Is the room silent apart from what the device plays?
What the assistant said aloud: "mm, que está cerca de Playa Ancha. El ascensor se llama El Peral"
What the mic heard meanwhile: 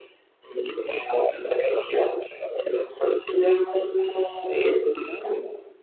Yes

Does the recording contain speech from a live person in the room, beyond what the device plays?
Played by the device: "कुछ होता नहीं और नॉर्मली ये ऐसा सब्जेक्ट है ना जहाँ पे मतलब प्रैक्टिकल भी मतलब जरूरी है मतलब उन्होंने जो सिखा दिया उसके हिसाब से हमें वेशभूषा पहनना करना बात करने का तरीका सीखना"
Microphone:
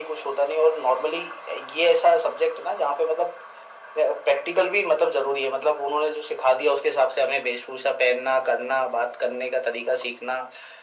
No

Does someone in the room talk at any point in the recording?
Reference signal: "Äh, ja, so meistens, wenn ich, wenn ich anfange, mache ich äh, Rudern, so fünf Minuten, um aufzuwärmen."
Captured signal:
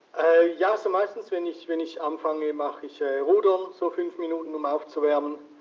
No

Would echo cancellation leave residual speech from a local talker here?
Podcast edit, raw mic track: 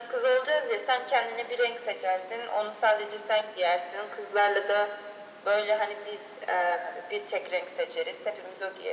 No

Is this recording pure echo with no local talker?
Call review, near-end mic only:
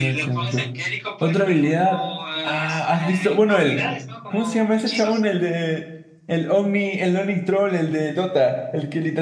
No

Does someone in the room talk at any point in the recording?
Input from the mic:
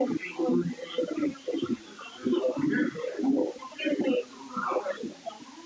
No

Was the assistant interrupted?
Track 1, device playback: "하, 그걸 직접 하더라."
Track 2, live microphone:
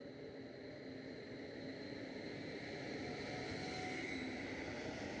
No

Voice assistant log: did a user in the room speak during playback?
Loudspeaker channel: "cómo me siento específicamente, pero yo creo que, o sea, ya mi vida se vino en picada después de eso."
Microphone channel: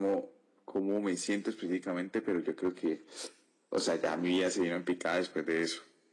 No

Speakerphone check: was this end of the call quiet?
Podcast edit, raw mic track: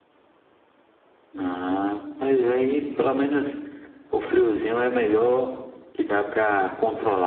Yes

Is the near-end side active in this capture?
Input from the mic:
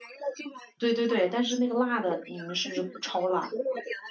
Yes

